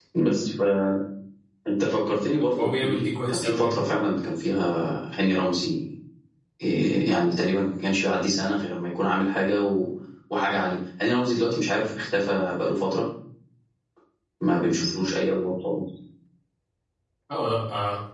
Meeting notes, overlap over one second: present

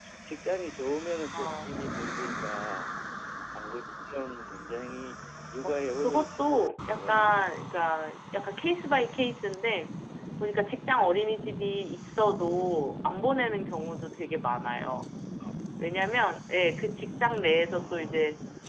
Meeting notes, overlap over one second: present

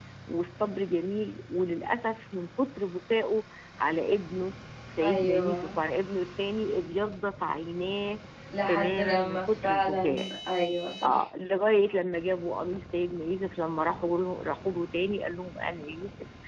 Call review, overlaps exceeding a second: present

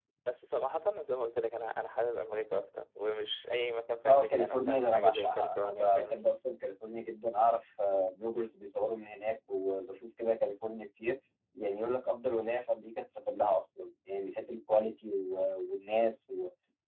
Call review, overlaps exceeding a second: present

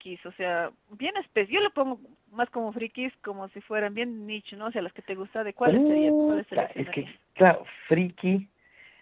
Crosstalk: present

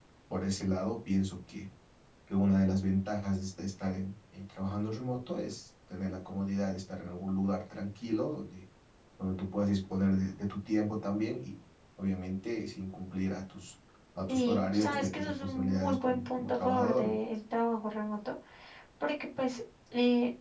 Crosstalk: present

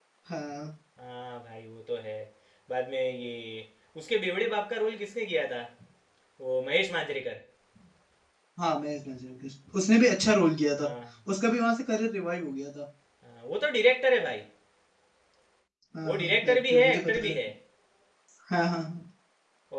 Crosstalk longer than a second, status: present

